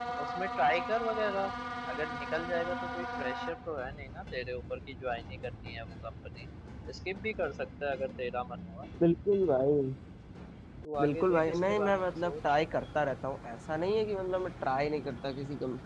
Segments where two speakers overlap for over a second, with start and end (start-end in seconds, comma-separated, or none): 11.0-12.6